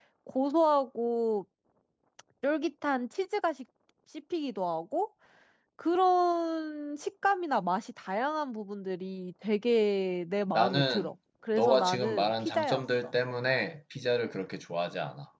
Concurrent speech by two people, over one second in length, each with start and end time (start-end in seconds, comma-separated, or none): 11.5-13.1